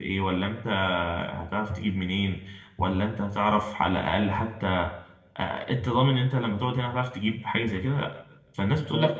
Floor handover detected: No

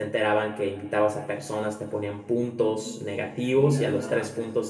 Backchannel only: Yes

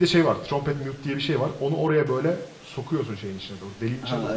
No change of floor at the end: Yes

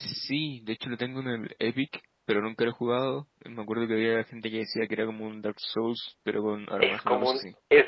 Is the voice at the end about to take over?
Yes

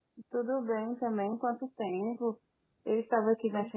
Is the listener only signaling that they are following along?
Yes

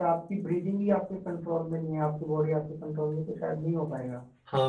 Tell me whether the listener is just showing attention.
No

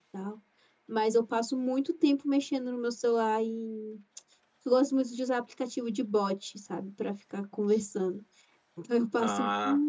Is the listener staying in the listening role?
Yes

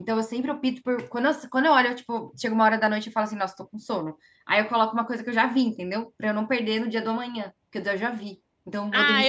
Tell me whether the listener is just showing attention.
No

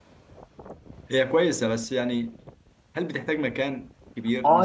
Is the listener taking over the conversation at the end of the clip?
Yes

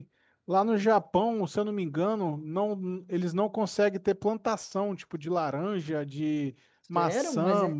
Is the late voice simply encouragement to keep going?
No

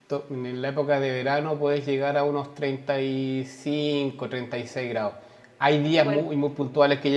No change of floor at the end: Yes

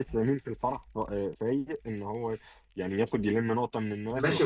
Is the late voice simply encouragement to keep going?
No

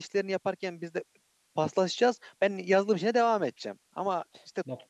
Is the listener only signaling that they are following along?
Yes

